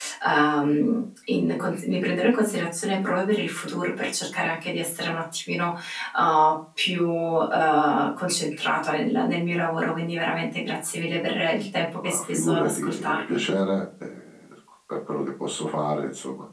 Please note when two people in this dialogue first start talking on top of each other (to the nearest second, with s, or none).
12 s